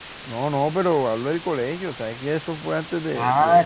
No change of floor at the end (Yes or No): No